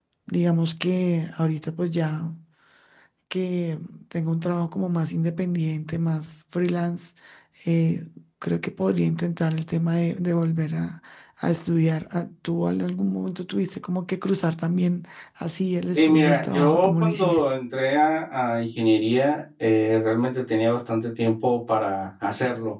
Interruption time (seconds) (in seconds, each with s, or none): 16.0 s